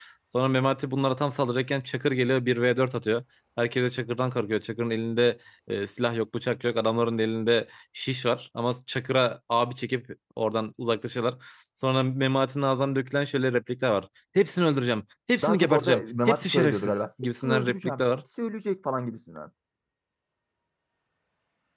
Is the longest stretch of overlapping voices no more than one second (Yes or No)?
No